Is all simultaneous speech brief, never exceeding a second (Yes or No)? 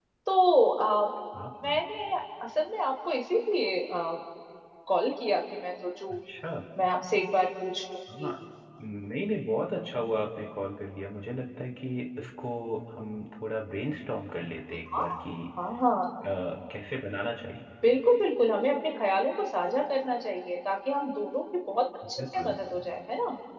Yes